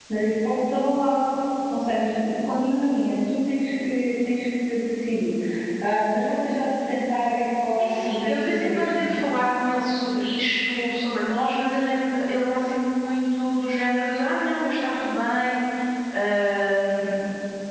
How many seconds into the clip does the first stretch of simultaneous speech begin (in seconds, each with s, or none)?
7.8 s